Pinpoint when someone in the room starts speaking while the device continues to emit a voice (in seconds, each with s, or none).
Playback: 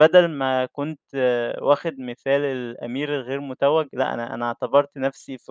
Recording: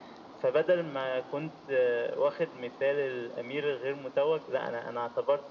none